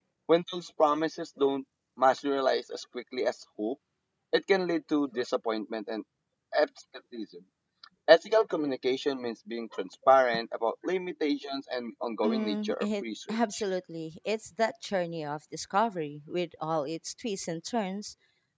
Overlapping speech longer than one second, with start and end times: 12.2-13.6

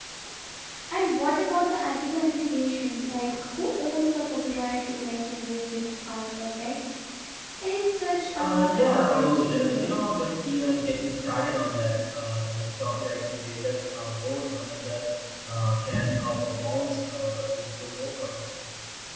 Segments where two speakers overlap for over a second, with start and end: 8.4-9.9

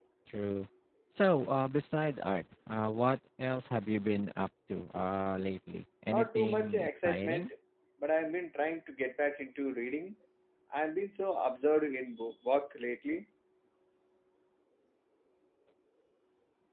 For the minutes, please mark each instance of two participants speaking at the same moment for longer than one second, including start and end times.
6.1-7.5

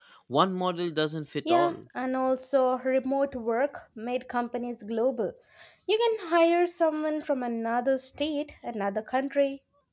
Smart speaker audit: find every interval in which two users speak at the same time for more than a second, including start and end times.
none

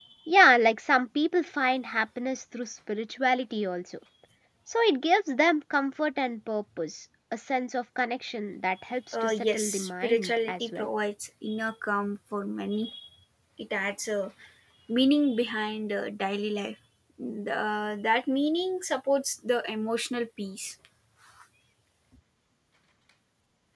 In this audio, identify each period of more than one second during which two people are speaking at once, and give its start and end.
9.1-10.9

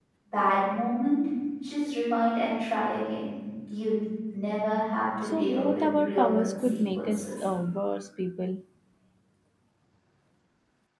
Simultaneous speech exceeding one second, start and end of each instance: 5.2-7.4

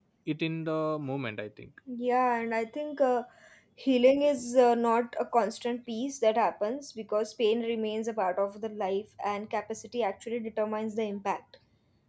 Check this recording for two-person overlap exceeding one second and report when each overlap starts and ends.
none

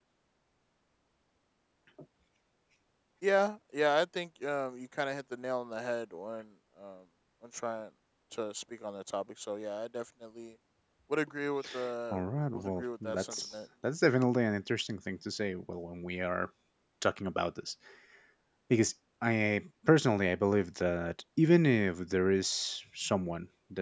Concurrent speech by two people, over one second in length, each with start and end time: 12.1-13.4

